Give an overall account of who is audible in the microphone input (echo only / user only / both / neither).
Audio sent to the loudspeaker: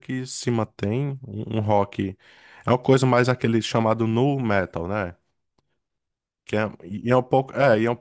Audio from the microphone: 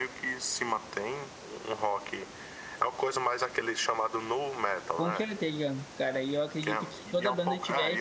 both